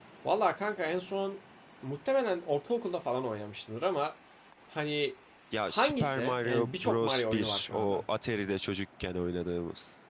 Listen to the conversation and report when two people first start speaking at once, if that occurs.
6 s

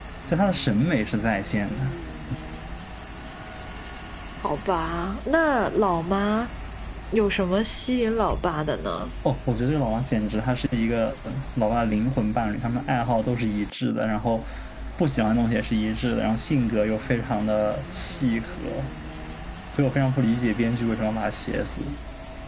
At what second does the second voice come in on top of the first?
none

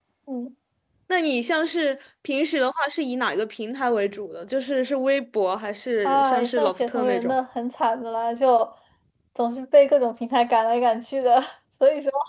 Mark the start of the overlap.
6 s

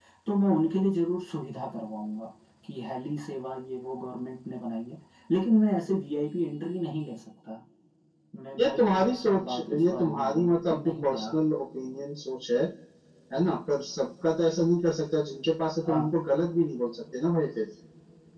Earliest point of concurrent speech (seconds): 9 s

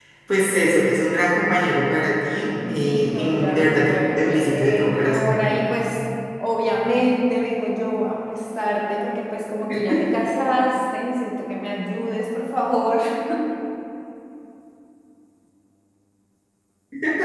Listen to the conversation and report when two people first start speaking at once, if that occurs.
3 s

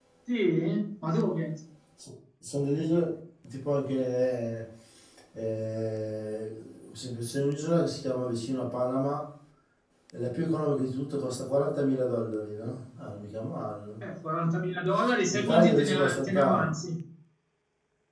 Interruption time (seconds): 15 s

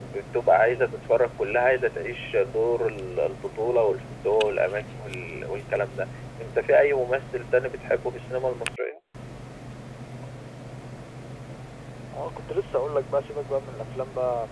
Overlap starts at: none

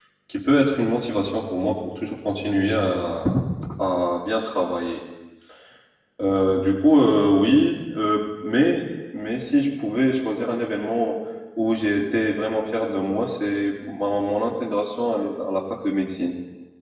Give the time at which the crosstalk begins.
none

